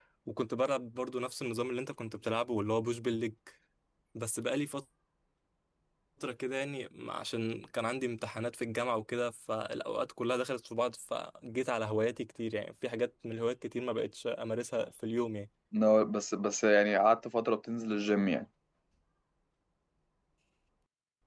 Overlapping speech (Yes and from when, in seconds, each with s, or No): No